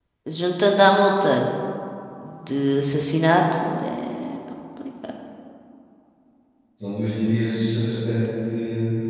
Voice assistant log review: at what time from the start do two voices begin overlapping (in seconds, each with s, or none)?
none